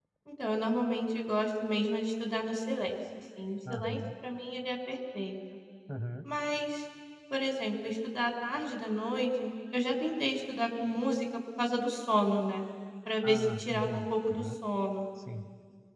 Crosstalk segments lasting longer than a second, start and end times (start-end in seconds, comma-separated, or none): 13.2-14.4